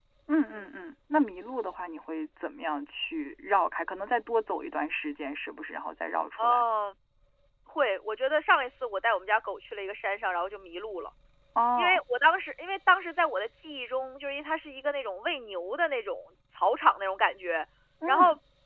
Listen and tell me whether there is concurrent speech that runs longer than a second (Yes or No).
No